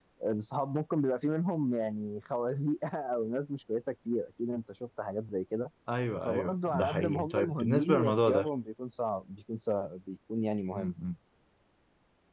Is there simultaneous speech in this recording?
Yes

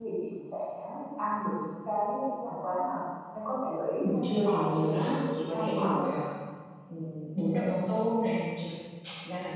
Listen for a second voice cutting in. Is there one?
Yes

